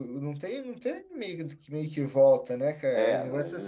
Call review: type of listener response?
taking over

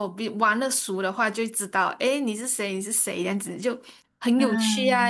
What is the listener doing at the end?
listening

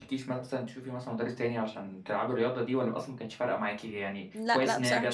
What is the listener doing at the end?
taking over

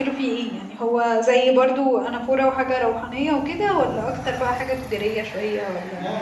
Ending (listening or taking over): taking over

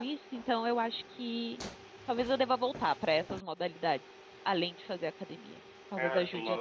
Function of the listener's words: taking over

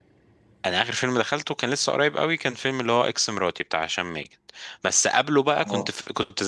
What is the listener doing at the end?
listening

